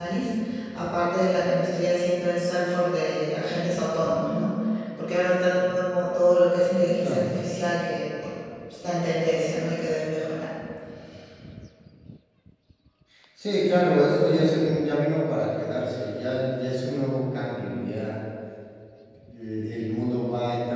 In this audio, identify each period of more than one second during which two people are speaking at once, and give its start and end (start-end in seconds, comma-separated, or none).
none